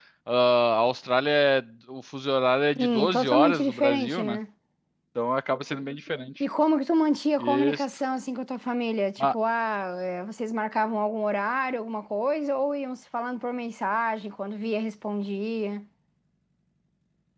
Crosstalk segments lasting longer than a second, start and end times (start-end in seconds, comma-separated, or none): 2.8-4.4